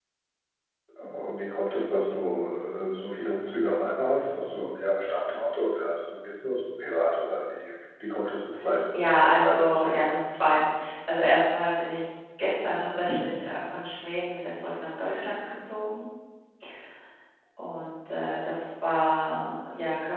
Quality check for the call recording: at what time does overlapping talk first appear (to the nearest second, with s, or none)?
9 s